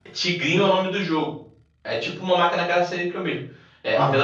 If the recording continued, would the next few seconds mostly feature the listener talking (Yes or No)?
No